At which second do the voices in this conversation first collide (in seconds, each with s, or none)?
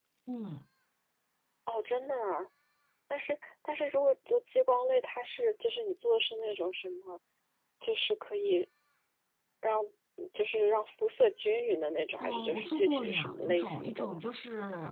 12.2 s